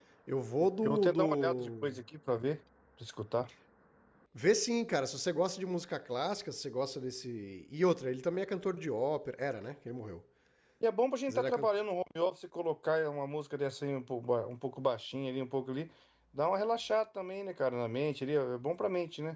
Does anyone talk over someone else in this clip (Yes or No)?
Yes